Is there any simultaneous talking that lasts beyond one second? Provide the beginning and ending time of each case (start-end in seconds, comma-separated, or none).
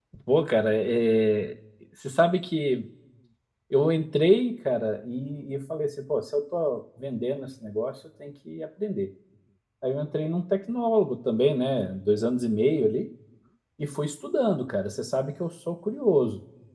none